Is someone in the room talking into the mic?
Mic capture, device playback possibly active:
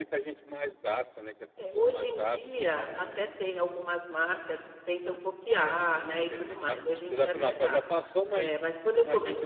Yes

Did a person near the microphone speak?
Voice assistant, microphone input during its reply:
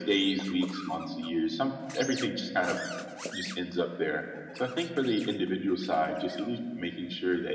No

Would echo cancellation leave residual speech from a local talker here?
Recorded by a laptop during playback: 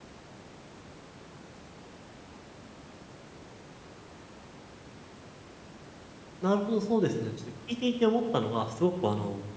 Yes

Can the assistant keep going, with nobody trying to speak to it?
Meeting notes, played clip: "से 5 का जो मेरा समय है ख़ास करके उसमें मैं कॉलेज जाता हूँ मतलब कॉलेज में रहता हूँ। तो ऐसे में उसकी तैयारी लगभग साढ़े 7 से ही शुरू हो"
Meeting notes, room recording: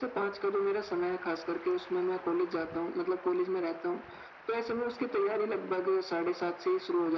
Yes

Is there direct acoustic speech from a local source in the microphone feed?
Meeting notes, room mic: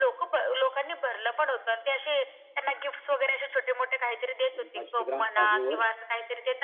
Yes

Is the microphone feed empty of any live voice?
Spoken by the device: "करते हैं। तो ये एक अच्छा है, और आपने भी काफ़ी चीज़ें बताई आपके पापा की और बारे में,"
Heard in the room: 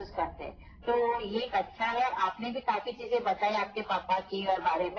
Yes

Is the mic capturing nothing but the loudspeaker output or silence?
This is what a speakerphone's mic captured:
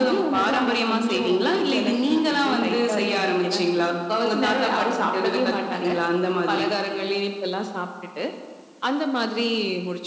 Yes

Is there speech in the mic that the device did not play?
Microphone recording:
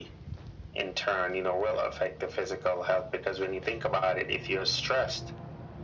No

